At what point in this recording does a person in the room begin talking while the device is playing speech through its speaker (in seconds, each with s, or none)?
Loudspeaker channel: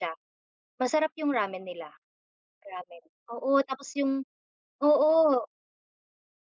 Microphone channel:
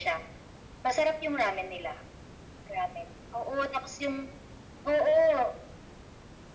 none